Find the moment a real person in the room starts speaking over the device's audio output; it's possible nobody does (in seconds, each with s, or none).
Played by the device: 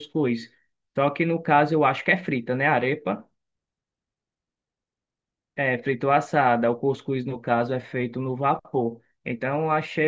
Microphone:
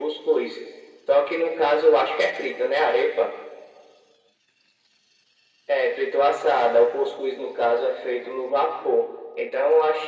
none